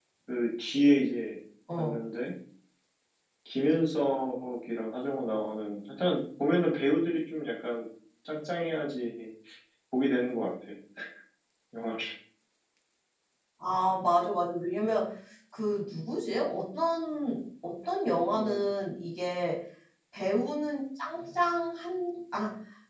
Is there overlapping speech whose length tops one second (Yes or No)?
No